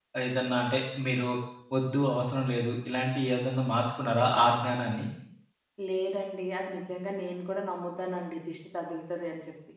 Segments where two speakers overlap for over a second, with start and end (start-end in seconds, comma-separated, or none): none